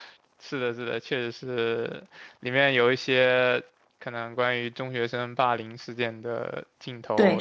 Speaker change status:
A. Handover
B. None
A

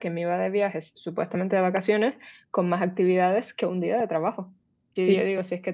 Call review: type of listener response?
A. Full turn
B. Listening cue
B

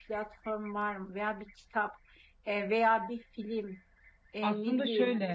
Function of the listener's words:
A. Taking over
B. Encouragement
B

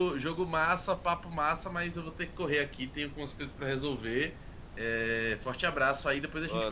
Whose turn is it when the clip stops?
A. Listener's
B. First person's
A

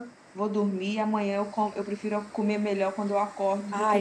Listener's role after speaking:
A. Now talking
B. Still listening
A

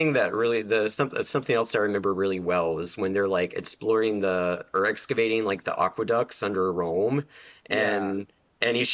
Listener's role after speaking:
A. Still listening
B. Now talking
A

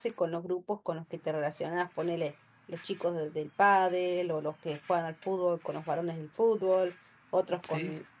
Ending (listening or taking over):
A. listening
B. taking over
A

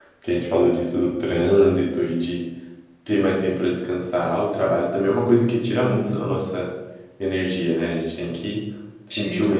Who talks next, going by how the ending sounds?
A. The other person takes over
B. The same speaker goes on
B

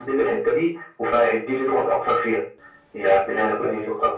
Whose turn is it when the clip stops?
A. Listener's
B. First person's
A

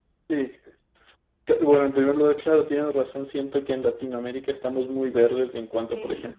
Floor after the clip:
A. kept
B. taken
A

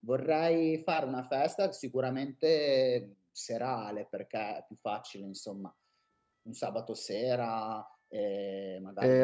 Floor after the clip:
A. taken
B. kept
A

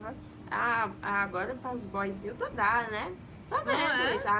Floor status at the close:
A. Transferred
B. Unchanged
B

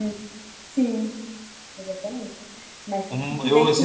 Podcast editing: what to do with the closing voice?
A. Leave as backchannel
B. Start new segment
B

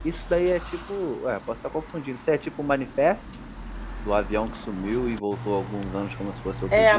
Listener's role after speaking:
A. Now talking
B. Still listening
A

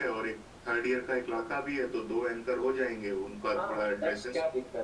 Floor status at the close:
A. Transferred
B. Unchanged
A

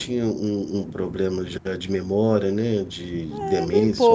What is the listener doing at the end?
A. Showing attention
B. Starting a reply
B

